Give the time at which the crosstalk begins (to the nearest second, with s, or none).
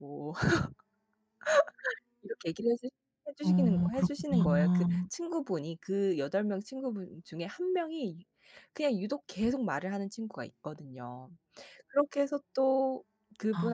3 s